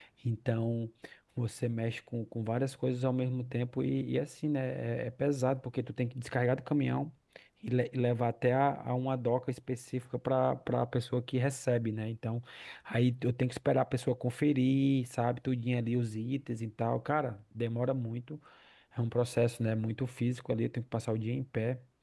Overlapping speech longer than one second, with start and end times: none

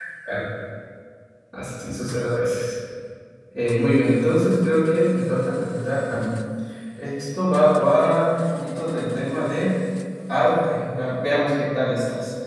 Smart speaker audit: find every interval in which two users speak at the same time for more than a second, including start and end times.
none

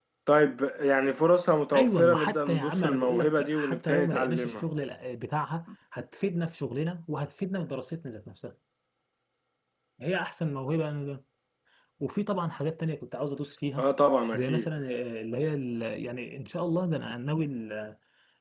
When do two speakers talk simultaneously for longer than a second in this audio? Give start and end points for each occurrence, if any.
1.7-4.6

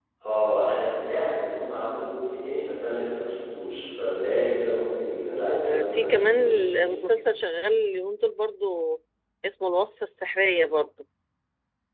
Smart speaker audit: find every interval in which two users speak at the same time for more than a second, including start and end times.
5.5-6.9

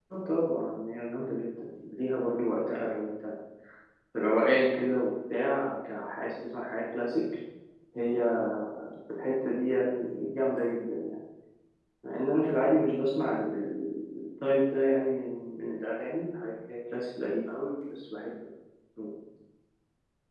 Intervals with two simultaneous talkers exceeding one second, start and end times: none

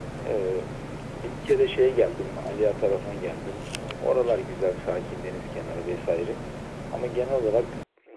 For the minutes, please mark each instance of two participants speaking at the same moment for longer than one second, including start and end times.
none

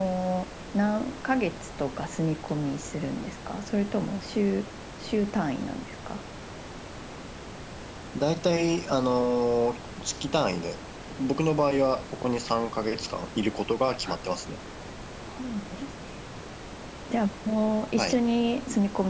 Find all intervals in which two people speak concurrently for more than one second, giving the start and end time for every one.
none

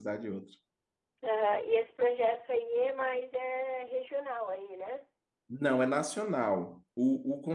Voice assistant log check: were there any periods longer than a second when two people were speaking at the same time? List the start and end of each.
none

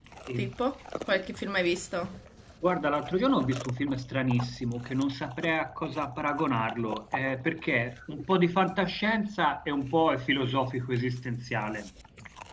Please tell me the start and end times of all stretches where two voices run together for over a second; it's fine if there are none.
none

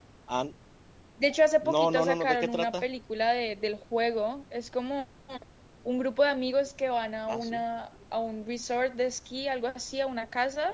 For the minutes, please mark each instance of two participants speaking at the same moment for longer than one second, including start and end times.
1.6-2.8

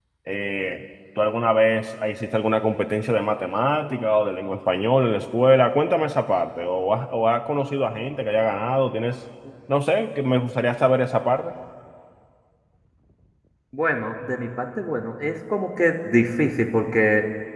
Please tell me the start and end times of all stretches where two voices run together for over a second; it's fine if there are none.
none

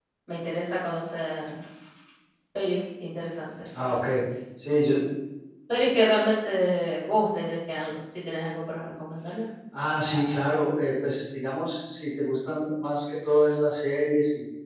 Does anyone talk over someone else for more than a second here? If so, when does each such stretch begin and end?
none

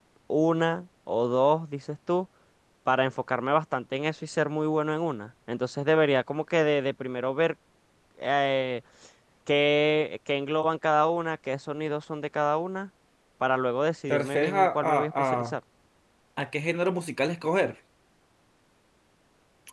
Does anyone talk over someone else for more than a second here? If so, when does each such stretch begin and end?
14.1-15.5

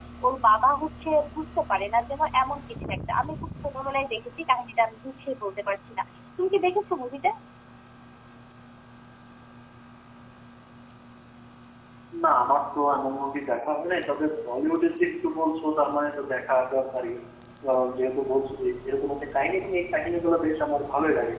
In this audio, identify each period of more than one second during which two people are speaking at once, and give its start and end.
none

